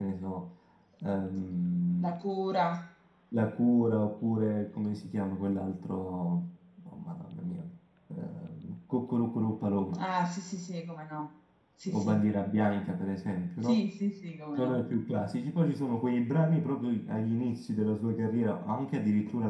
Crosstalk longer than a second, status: none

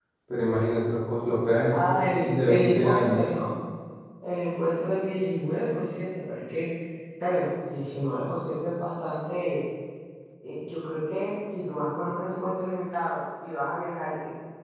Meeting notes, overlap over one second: present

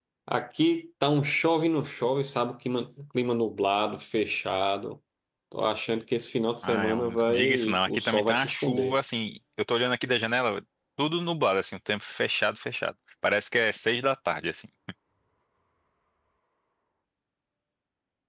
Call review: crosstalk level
present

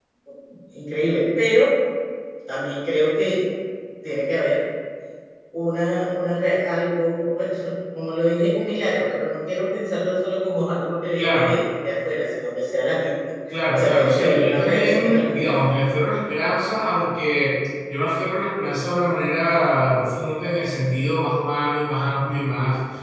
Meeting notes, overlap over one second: present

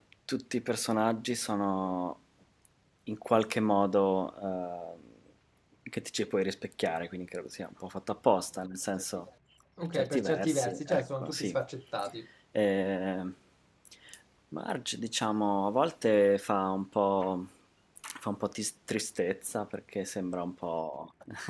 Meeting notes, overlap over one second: present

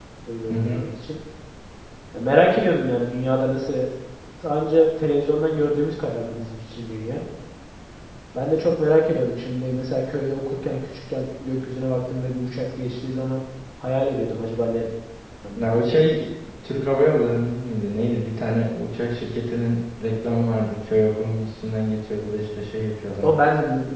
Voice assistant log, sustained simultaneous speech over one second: none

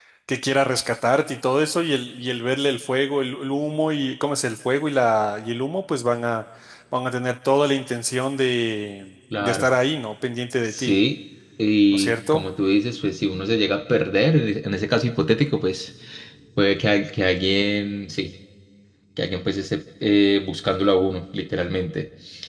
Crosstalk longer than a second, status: none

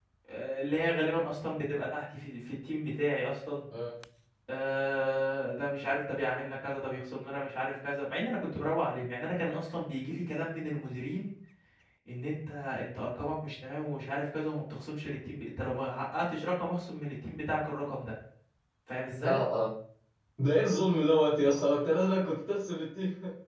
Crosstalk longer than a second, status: none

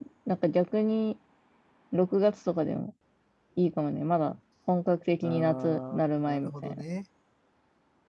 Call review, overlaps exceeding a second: present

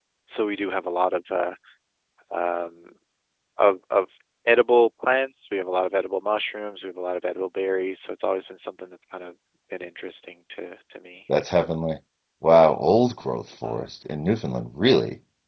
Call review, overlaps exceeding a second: none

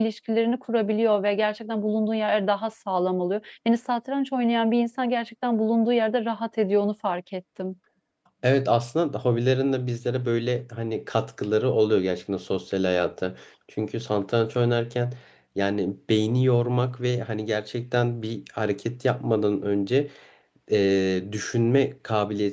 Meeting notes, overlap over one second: none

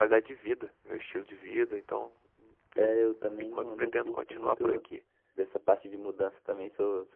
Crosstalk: present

